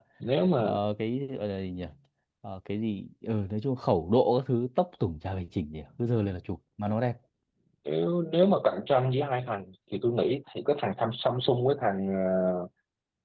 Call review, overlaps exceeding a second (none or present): none